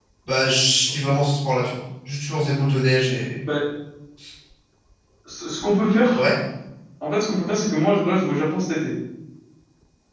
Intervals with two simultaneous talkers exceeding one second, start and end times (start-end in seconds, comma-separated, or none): none